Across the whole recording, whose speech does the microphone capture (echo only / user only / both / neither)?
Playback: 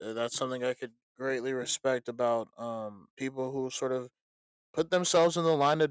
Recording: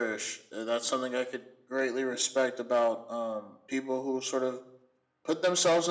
echo only